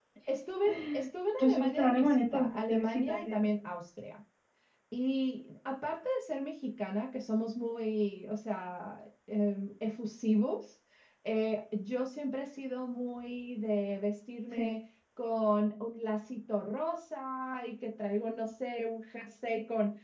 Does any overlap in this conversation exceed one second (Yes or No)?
Yes